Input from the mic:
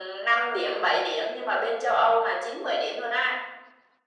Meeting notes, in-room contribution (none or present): none